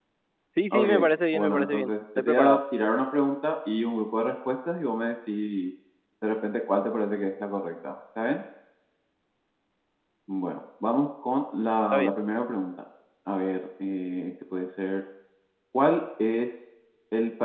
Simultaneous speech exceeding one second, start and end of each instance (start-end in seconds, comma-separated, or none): 1.3-2.6